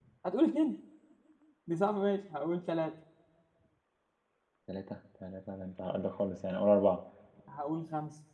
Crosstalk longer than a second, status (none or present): none